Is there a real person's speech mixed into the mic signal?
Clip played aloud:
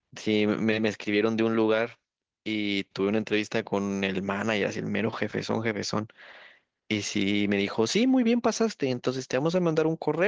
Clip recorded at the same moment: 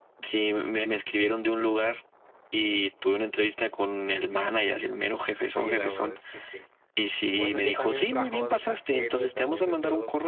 Yes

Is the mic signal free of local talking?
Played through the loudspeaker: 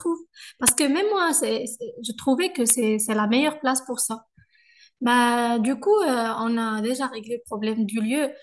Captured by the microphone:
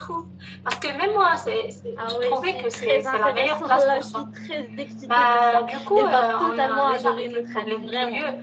No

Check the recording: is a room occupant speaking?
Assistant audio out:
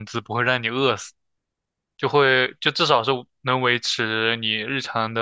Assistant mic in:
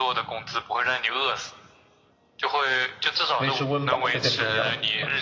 Yes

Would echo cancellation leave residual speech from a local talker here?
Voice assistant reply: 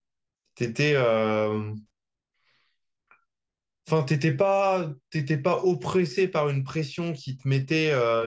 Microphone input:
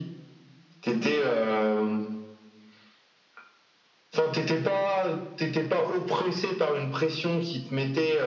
No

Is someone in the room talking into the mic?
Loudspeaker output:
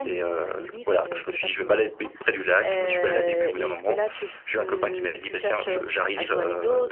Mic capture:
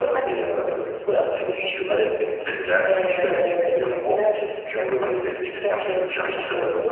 No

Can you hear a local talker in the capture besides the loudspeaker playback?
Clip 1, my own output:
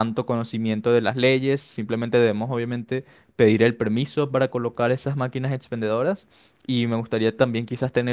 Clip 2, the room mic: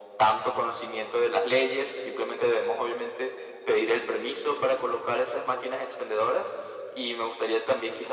No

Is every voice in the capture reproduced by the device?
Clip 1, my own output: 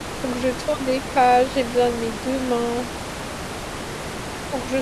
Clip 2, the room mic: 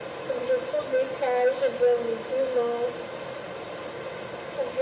Yes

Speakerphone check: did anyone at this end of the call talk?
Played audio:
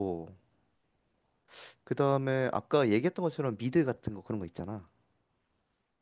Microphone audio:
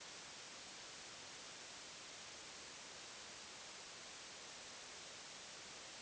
No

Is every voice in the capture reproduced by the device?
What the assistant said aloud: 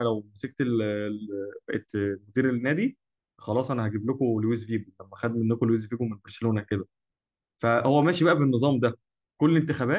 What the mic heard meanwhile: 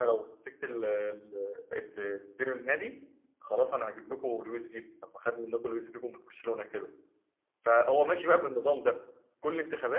Yes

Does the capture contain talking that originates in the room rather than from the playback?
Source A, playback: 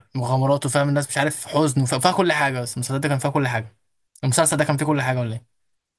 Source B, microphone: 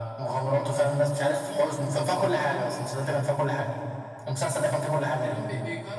Yes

